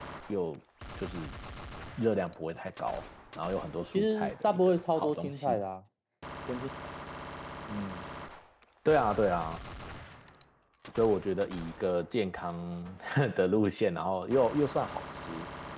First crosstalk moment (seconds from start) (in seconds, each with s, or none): 3.9 s